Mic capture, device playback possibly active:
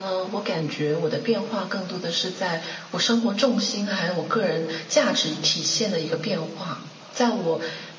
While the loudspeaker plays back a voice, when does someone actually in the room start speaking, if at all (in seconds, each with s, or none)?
none